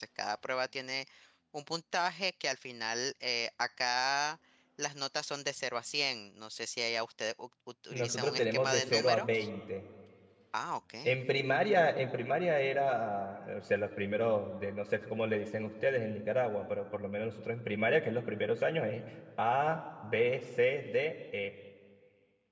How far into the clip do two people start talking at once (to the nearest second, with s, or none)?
8 s